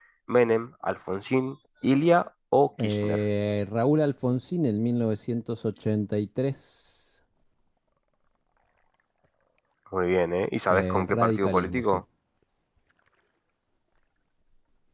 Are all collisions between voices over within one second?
No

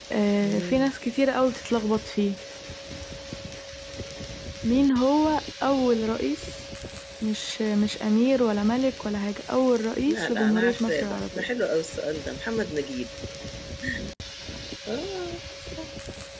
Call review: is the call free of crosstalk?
No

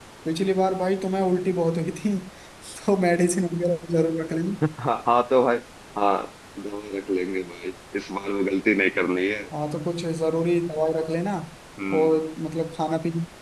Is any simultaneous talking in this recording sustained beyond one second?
No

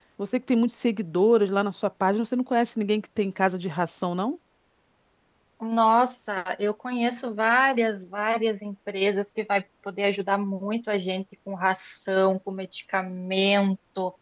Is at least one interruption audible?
No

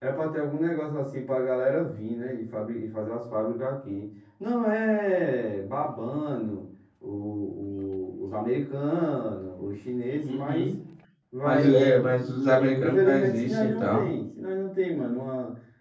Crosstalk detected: Yes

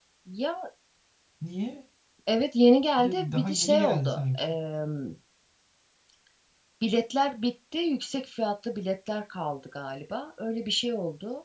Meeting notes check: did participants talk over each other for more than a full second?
Yes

